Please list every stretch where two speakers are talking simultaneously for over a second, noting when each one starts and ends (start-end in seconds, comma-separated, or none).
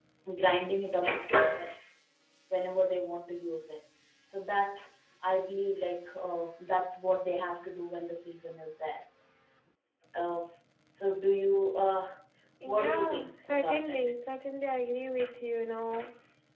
12.6-14.0